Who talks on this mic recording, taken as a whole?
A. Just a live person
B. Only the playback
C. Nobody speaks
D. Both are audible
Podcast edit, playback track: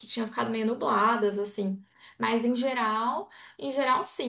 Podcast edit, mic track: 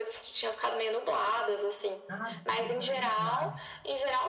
D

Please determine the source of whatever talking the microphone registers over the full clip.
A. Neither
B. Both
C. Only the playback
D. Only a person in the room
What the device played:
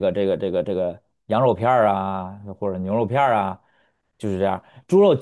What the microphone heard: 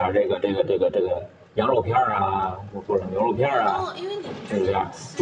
B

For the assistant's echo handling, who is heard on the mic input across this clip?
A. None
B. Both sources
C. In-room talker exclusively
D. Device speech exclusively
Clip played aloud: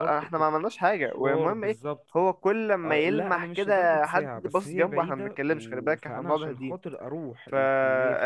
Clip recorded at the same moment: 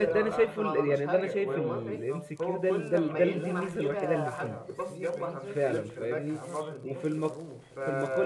B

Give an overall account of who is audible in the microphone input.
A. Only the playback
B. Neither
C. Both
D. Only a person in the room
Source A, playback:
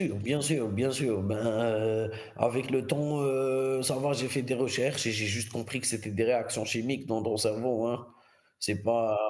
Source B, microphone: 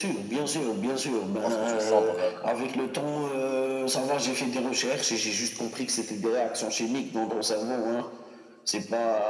C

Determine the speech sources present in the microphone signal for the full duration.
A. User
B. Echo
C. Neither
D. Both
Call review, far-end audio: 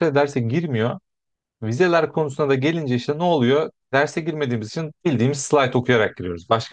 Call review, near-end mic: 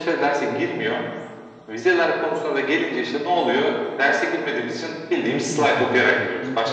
D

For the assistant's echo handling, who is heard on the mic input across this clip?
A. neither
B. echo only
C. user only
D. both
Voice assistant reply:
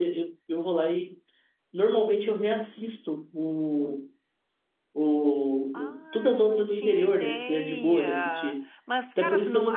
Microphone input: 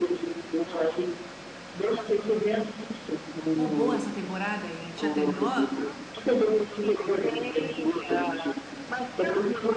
D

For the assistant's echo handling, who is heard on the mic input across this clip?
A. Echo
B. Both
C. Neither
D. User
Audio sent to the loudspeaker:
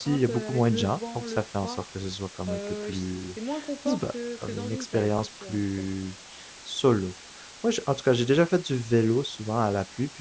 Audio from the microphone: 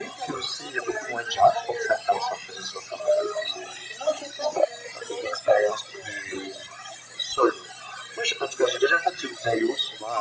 A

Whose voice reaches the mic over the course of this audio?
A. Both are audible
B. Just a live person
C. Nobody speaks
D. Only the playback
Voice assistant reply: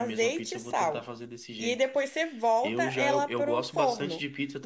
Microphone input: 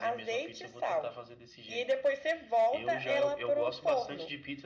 D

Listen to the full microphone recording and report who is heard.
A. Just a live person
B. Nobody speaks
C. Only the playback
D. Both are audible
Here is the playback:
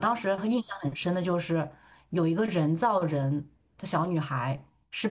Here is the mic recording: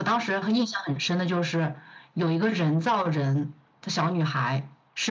C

